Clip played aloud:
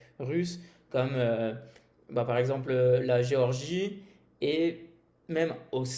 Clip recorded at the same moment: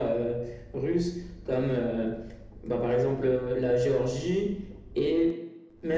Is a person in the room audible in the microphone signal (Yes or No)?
No